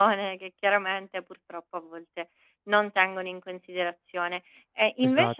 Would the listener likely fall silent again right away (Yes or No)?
Yes